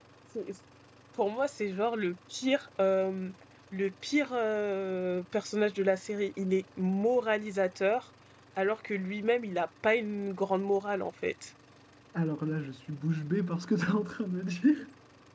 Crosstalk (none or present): none